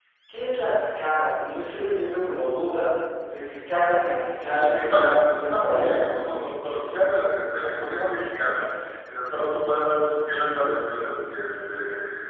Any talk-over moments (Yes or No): Yes